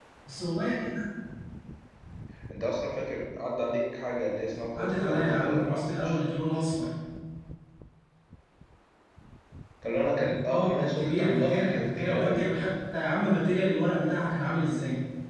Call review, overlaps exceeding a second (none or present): present